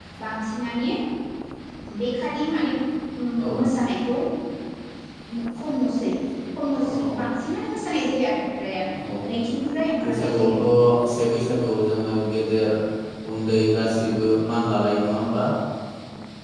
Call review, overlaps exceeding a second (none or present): none